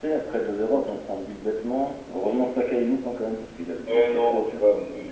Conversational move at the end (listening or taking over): taking over